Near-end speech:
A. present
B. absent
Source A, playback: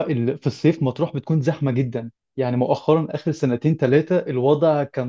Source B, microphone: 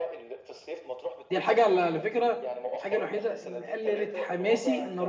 A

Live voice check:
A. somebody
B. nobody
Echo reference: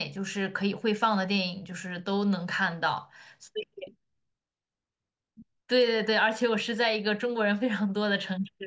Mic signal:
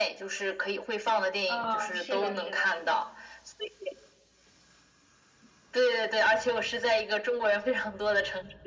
A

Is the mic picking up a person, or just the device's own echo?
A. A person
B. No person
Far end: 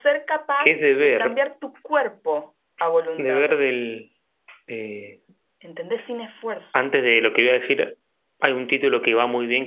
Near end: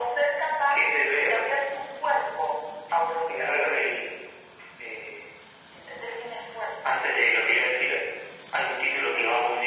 B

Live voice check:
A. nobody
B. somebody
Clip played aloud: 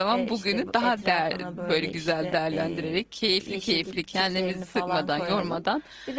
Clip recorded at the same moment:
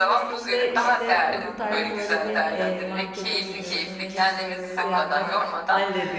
B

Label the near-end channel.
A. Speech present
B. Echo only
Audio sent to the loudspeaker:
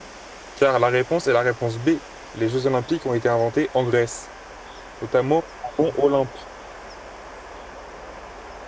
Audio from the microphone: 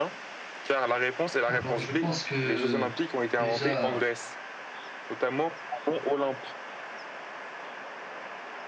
A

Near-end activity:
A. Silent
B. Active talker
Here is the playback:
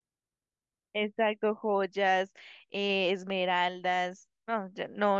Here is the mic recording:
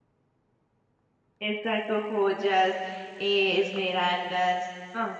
A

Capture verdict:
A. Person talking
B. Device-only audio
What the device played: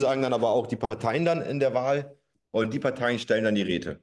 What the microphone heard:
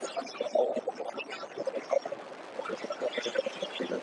B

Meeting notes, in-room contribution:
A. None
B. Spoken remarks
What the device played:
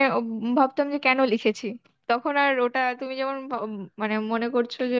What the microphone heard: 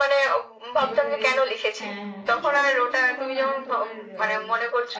B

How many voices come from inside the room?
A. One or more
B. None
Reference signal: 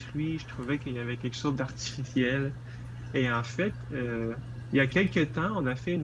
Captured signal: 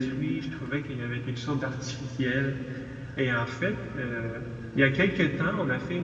B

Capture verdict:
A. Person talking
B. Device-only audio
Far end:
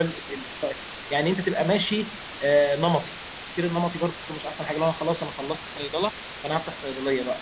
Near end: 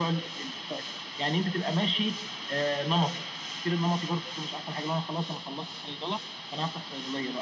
B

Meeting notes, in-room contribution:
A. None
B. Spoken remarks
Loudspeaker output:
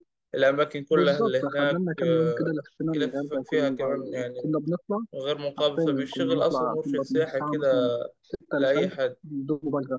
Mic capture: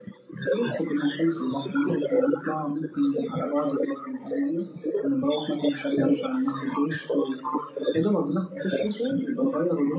B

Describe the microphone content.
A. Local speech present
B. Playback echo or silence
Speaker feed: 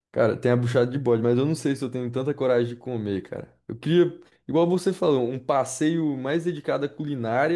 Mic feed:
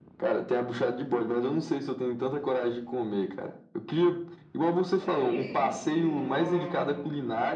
A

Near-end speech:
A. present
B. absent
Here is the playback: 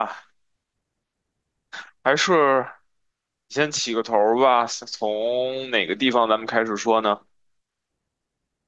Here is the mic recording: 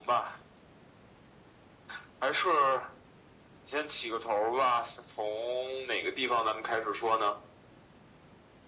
B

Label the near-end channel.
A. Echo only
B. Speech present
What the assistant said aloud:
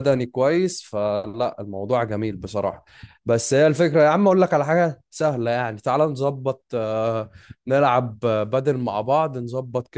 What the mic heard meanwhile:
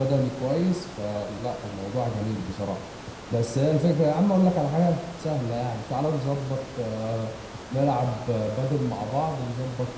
A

